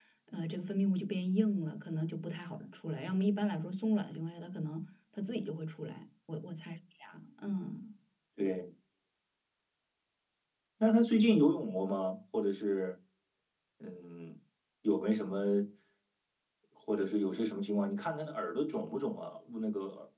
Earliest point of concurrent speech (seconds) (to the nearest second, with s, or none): none